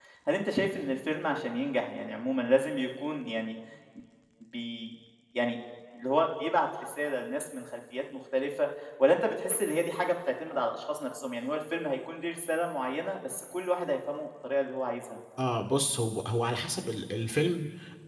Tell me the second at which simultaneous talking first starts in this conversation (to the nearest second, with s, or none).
none